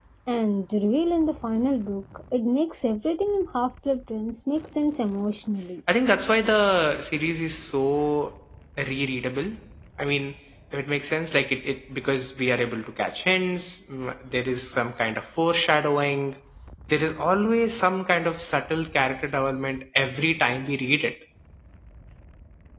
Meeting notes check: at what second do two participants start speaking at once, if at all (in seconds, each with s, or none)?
none